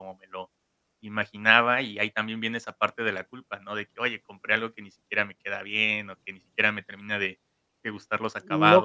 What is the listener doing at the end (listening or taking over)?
taking over